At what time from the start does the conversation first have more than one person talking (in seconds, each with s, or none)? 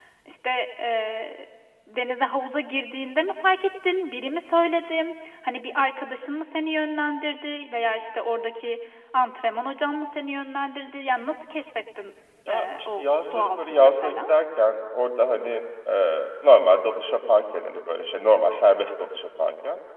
12.5 s